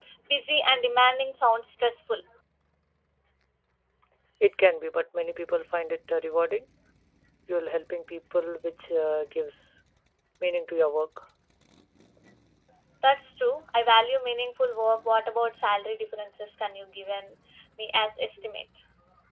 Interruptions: none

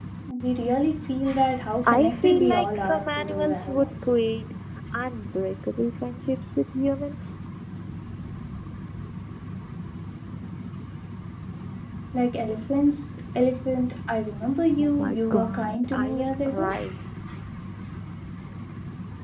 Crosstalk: present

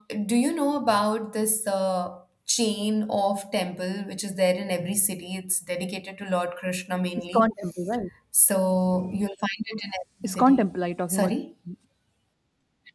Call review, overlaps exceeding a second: none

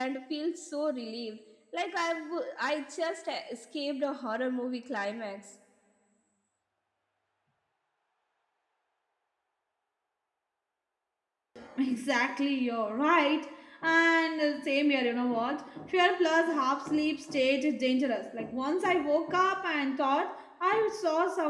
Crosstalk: none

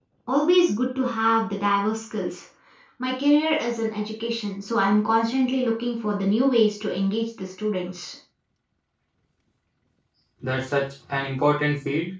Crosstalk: none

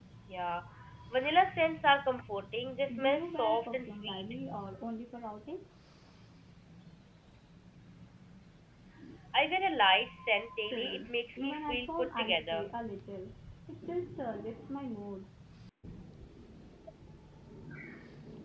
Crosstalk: present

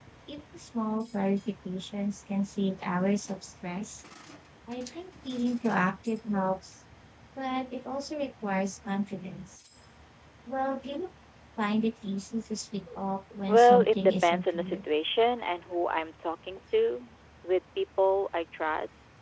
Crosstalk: present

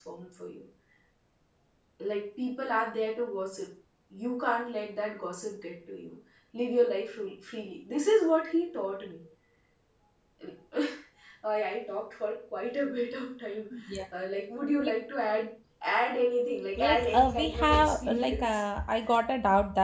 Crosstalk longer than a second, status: present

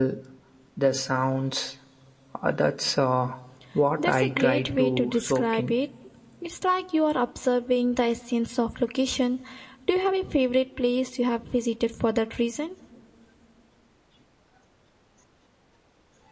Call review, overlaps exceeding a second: present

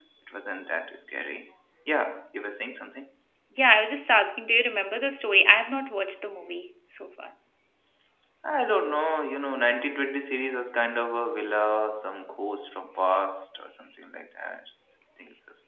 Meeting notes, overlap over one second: none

